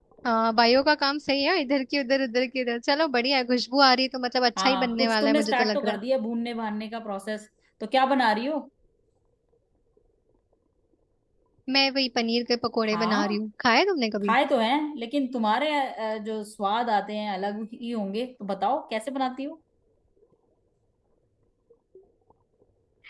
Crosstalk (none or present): present